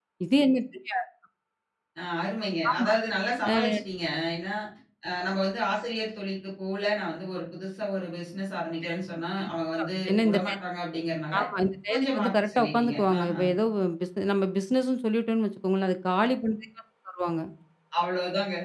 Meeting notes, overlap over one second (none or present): present